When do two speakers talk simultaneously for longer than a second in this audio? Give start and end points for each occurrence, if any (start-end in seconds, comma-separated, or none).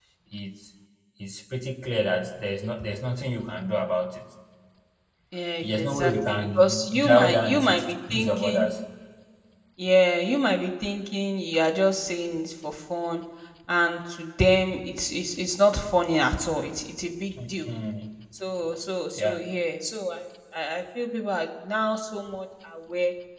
5.6-8.8